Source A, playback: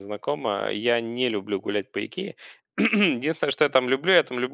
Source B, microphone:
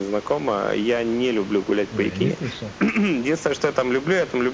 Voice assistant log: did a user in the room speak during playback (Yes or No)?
Yes